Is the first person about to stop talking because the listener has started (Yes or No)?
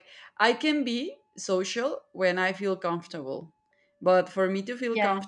No